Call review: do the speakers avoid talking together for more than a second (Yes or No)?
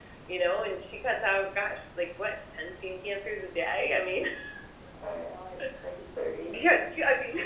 Yes